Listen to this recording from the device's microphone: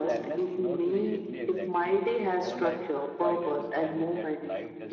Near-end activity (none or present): present